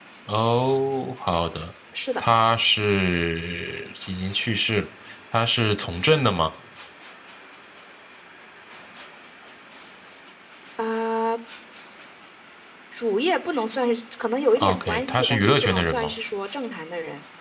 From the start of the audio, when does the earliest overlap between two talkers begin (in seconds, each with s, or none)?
14.6 s